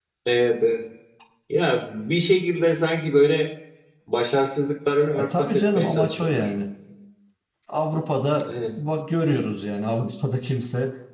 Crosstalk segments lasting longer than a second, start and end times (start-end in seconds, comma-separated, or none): 5.1-6.5